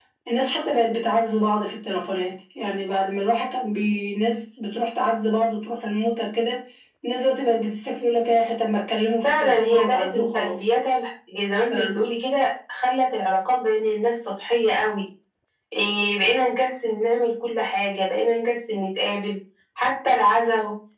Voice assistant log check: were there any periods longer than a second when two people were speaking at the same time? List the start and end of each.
9.2-10.8

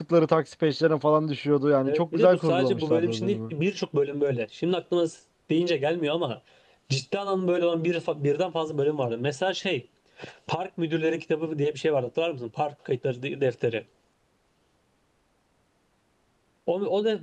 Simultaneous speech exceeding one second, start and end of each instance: 1.9-3.5

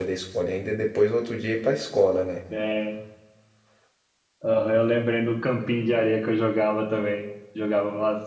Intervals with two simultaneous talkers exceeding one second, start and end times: none

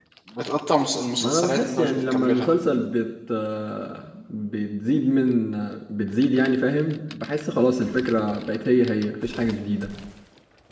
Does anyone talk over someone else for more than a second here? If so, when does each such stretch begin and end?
1.2-2.5

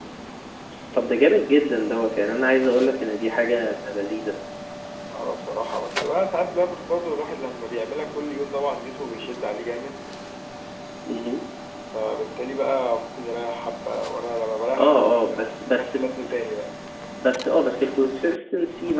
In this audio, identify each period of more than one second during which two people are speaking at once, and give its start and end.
14.8-16.3

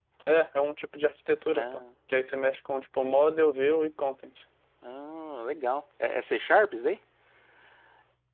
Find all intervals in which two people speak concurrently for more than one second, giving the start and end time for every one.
none

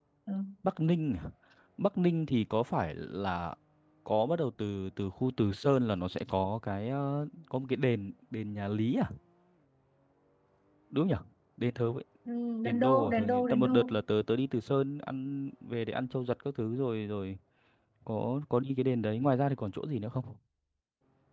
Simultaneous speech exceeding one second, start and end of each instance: 12.6-14.0

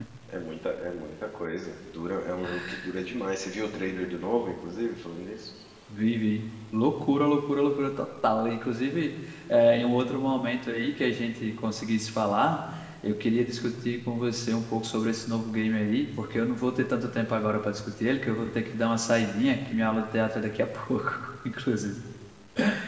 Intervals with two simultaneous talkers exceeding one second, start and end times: none

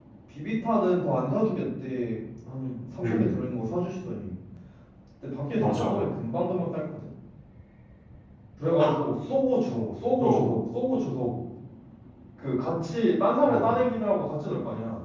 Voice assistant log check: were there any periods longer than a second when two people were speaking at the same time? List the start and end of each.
none

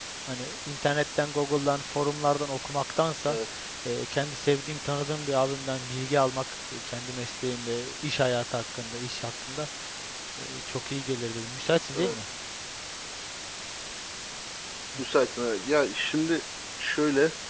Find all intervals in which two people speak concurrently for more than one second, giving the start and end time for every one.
none

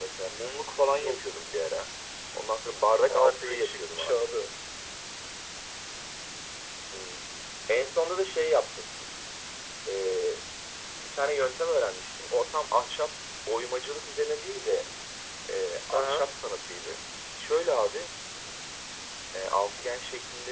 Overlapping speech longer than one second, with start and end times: 3.1-4.3

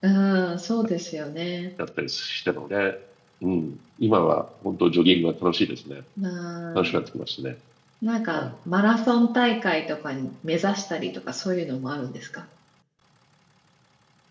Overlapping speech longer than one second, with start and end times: none

